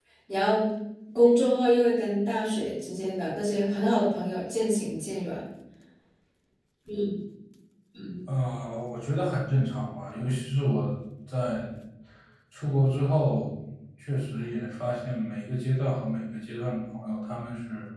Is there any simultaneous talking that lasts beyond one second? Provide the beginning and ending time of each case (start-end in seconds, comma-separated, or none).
none